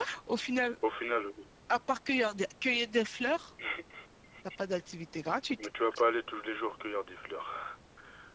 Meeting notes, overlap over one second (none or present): none